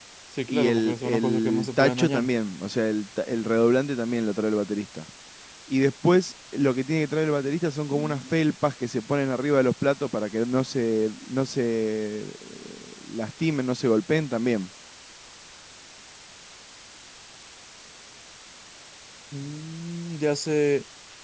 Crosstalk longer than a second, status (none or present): present